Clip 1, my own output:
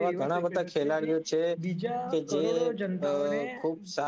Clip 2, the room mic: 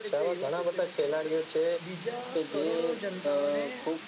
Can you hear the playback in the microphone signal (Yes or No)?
Yes